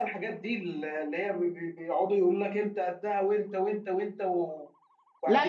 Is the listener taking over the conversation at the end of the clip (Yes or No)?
Yes